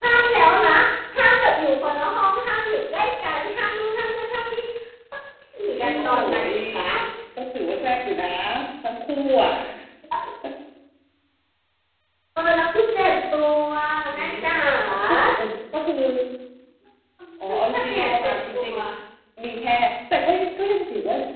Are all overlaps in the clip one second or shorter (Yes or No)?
No